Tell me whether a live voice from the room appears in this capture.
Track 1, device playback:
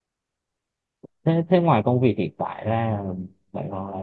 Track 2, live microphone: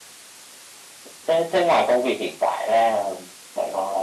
No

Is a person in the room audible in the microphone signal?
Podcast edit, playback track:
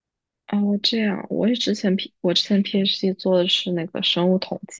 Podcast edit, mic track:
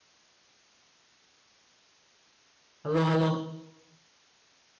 Yes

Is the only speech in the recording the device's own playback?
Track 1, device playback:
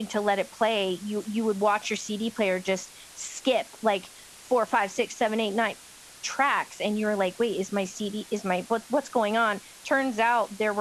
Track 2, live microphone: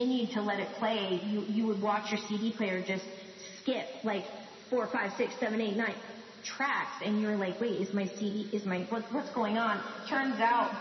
Yes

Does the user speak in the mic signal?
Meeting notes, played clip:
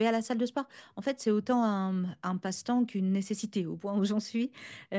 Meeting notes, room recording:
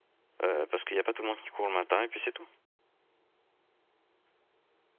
Yes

